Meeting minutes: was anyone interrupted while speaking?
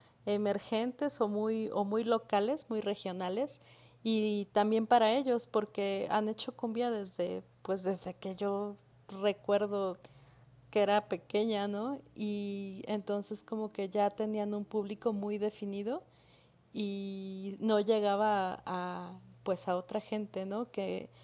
No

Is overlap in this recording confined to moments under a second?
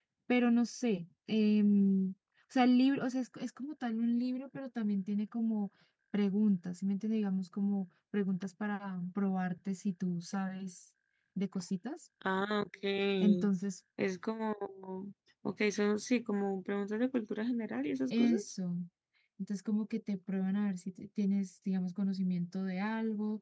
Yes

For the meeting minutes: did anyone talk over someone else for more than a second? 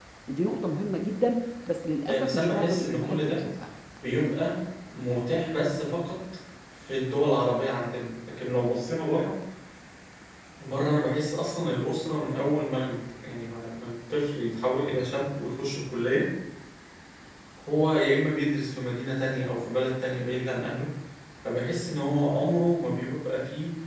Yes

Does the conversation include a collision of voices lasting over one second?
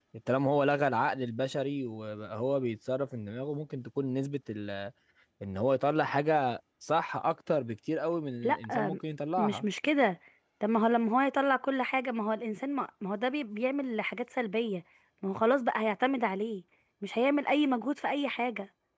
No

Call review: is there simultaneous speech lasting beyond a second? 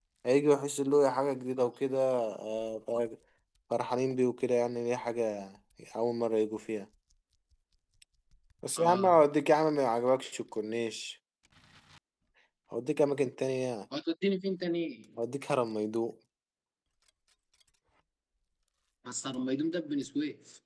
No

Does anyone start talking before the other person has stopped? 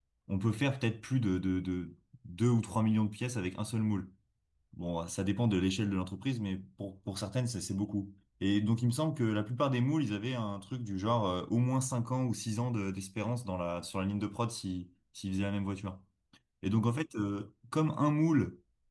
No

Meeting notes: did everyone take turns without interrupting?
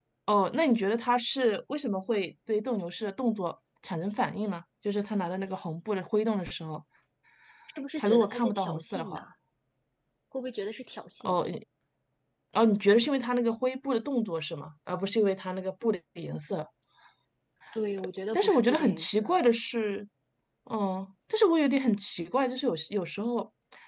No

